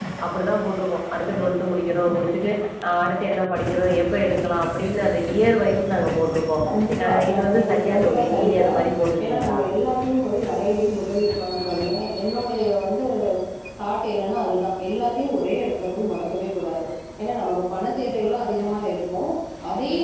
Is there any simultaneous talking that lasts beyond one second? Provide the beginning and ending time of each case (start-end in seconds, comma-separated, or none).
7.0-8.7